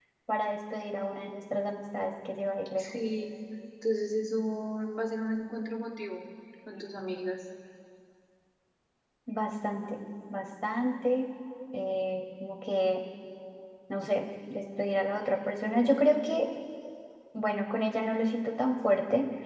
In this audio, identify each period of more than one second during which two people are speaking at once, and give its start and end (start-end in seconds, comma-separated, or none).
none